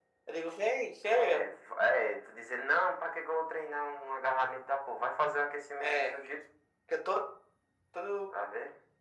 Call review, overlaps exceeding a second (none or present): none